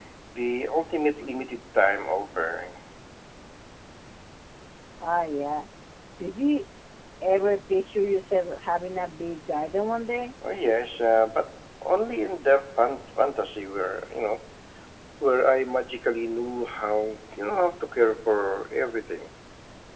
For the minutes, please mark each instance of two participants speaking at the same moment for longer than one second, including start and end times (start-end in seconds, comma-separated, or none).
none